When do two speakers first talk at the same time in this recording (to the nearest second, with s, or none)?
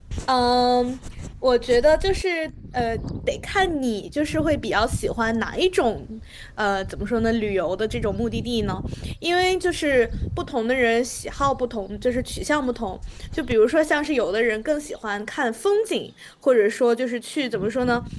none